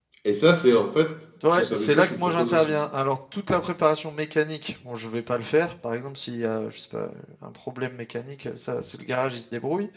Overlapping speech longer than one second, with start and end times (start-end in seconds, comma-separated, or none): 1.5-2.8